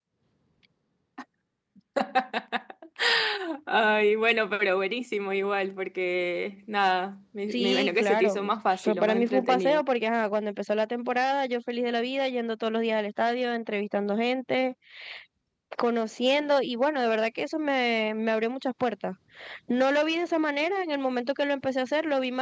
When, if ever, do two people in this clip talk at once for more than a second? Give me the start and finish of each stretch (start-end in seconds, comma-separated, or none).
7.5-9.8